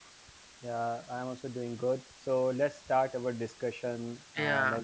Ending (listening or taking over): listening